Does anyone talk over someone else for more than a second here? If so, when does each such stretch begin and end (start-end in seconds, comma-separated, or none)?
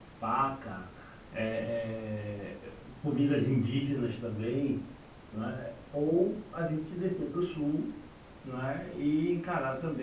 none